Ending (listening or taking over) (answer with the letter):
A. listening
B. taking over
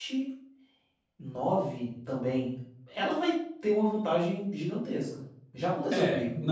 B